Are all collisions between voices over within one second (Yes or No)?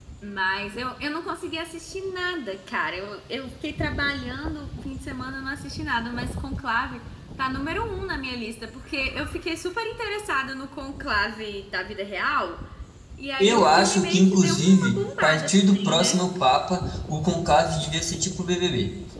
No